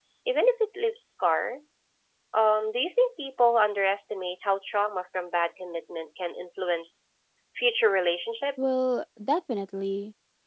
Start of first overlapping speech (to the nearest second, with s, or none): none